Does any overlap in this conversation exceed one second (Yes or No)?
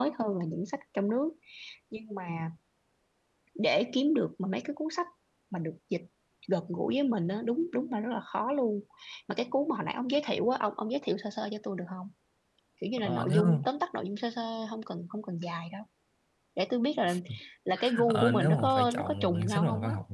Yes